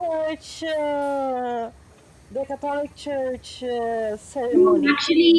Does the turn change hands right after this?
Yes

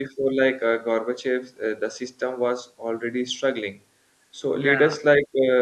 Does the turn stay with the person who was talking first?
Yes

